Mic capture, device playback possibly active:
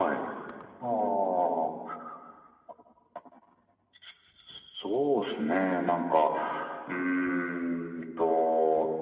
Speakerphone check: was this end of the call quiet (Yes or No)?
Yes